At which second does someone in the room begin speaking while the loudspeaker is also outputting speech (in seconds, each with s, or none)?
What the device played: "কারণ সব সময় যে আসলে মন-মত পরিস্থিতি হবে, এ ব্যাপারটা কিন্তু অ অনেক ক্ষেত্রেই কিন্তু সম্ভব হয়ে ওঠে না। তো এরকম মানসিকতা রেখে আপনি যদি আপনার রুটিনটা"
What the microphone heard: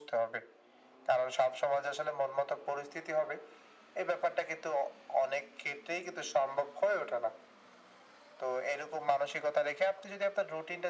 none